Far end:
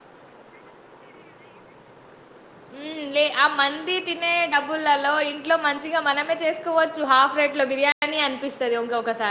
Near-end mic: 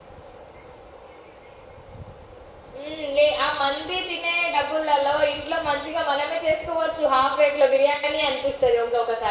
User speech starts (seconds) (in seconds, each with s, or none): none